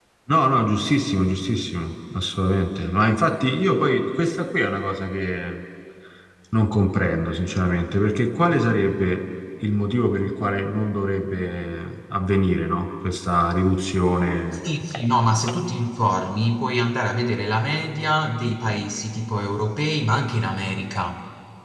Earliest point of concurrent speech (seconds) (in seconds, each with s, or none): none